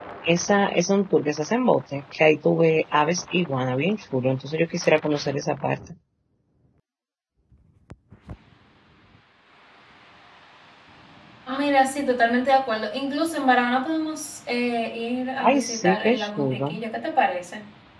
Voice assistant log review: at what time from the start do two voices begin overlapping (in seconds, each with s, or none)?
15.4 s